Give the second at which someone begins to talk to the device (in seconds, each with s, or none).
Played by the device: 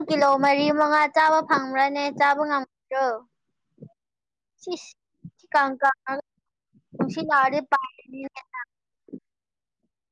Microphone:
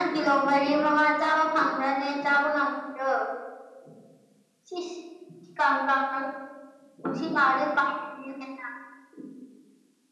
none